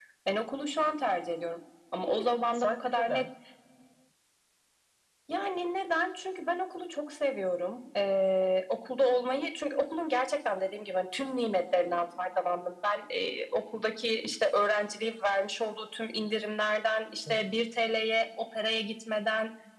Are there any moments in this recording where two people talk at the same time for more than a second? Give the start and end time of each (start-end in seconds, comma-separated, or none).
2.0-3.2